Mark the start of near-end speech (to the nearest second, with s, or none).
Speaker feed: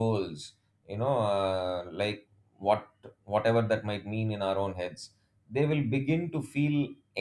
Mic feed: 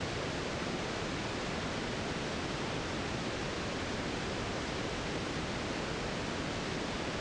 none